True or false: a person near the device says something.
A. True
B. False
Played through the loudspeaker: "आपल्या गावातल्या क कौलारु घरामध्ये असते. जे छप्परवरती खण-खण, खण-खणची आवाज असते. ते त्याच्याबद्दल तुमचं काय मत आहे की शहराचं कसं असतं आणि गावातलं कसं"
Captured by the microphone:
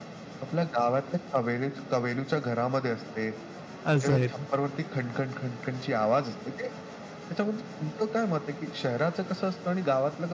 A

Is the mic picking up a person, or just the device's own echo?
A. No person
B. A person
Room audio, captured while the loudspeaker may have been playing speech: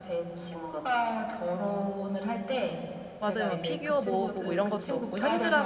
B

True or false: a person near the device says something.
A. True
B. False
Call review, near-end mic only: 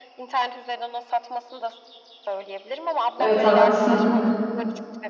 A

